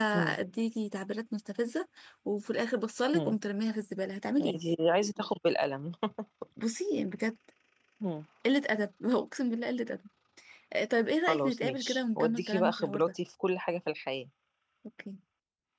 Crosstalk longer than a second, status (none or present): present